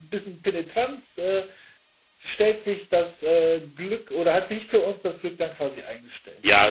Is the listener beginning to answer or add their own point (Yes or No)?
Yes